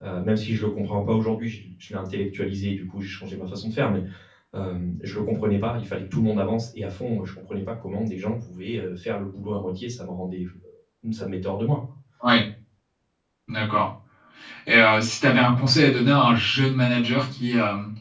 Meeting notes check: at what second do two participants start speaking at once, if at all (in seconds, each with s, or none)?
none